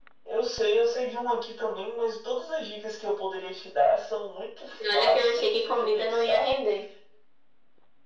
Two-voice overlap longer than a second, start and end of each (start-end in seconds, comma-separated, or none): 4.9-6.5